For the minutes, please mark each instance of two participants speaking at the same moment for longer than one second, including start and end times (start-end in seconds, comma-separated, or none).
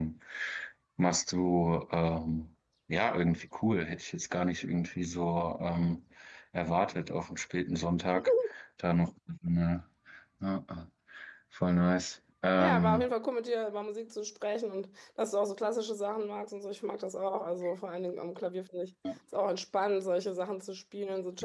none